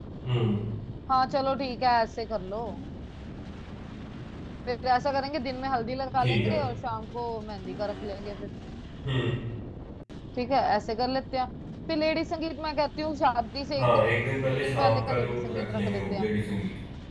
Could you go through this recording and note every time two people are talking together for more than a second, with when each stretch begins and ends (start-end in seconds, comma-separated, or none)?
14.6-16.3